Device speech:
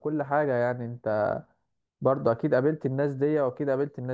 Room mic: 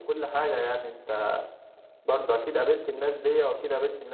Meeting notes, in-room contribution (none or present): none